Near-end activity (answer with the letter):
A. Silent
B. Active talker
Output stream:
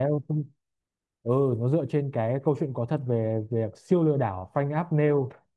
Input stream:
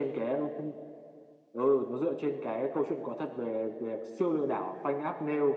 A